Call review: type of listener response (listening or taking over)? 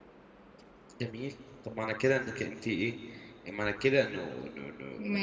taking over